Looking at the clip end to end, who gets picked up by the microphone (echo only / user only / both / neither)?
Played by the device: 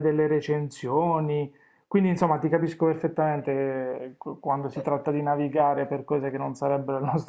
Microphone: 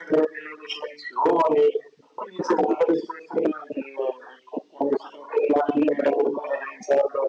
echo only